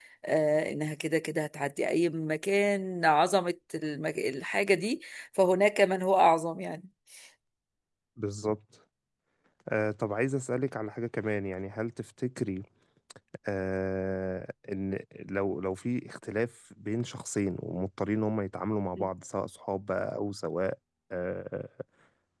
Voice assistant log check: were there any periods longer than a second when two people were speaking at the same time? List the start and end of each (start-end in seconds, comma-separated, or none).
none